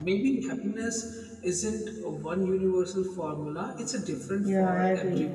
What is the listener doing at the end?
taking over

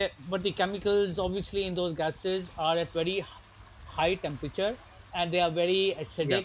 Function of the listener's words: listening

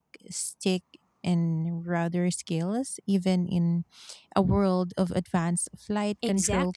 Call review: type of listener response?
taking over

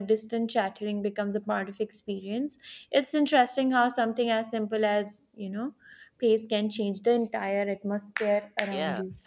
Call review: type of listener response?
taking over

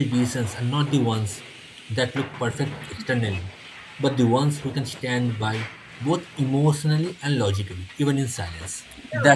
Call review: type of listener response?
taking over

